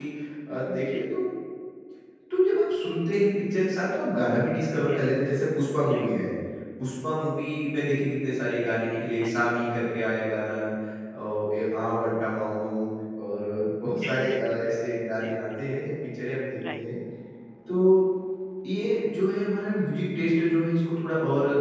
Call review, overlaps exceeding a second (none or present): none